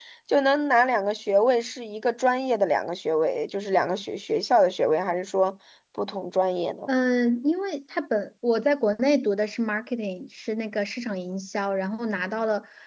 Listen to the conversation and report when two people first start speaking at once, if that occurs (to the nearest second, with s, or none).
none